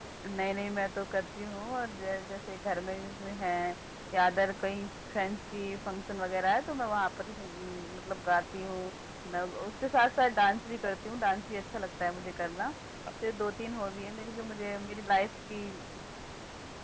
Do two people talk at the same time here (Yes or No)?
No